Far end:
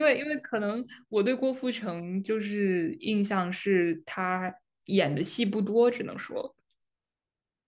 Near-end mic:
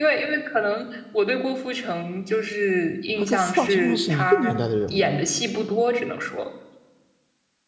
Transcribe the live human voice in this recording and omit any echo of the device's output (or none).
他跟四大天王是一个年代的人物，